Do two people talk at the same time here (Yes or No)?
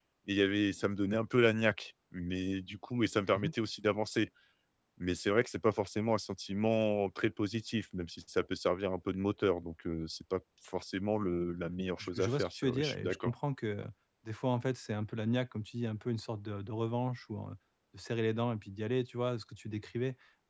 Yes